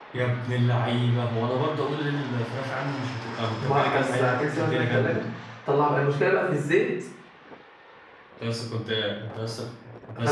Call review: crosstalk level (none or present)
present